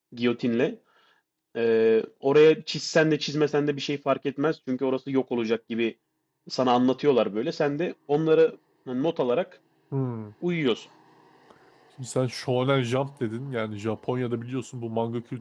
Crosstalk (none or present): none